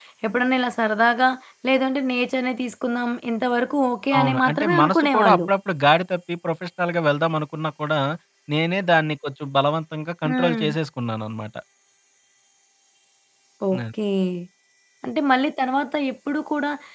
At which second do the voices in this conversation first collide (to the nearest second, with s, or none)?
4 s